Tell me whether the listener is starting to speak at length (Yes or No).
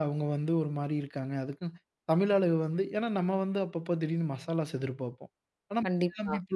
No